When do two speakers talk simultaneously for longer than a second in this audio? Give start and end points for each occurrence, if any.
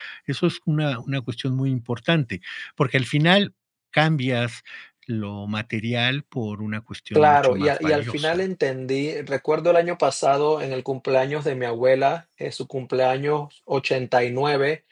7.1-8.4

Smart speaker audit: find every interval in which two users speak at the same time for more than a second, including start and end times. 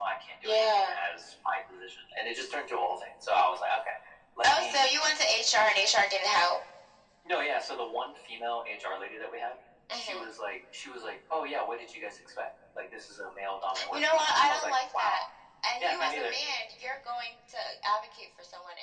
13.9-15.2

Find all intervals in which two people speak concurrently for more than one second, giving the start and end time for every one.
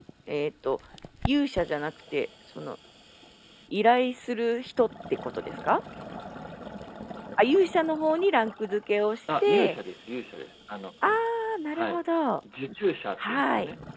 none

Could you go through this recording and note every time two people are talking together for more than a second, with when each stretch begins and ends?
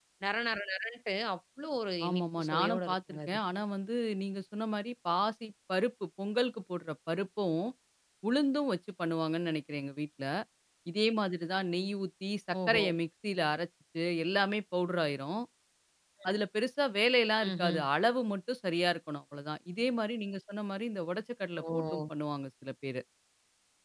2.1-3.4

